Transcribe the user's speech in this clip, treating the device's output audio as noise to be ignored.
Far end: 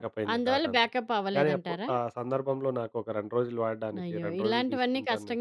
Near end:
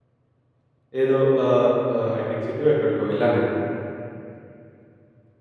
ఏదో ఆహ్, ఆహ్, హైటెక్ సిటీ ఎక్కడికో వెళ్ళాను నేను.

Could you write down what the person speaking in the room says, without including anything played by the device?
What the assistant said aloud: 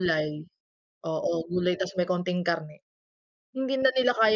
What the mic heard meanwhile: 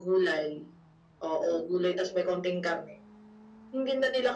none

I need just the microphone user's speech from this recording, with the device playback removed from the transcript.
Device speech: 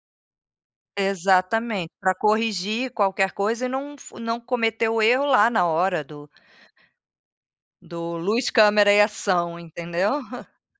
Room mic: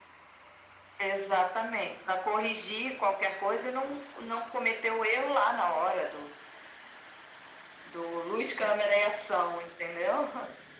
none

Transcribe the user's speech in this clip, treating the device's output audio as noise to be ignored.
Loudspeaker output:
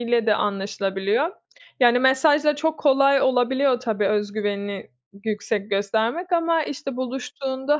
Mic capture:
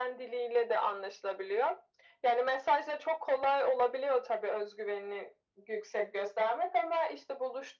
none

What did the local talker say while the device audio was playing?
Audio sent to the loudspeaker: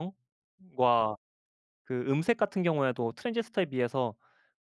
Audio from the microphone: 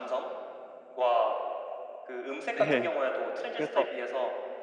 네. 그래서

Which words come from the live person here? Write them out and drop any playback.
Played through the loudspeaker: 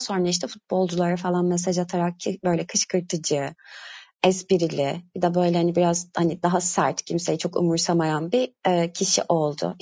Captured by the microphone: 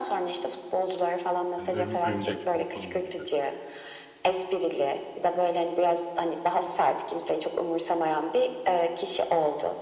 Hani, "Örüm örümcek, korktun mu?" gibi.

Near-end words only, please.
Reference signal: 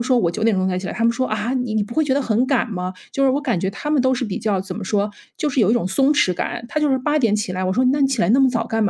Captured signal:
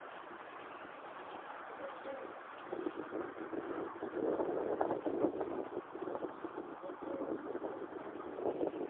none

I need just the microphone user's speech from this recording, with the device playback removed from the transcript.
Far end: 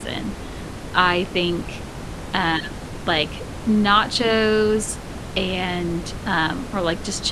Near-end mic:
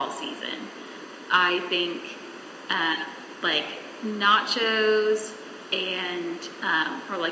none

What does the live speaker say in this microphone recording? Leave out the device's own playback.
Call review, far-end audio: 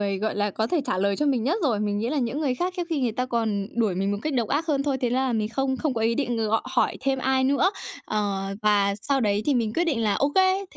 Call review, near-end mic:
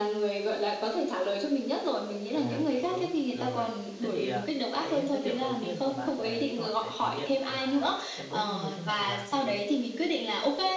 À, tự đốt. Rồi, thế thì, à, cái chất liệu đầu tiên mà bạn, à, chọn để thử nghiệm là xem đốt nó như thế nào là cái gì?

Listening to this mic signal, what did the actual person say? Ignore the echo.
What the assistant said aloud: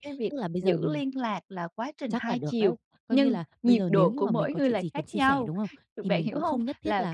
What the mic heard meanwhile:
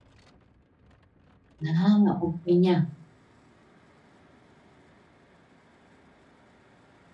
À! Ô kê nha.

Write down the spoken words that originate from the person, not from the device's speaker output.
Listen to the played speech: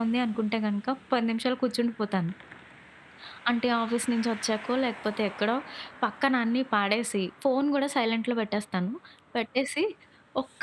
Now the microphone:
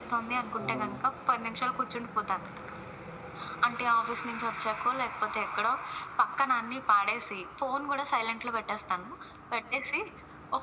అవును.

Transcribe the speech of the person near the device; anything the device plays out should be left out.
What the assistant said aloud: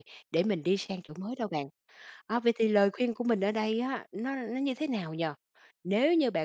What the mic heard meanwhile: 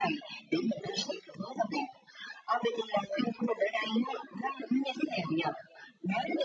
none

